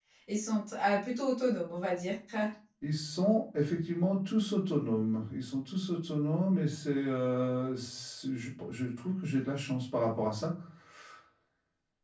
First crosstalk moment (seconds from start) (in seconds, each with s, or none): none